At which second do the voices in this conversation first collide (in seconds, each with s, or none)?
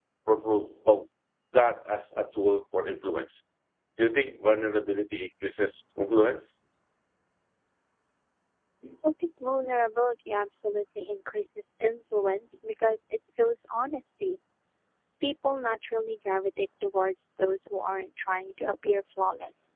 none